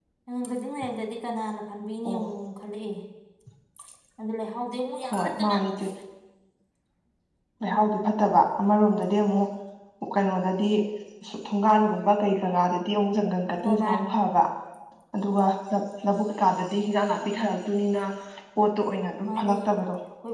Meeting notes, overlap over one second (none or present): none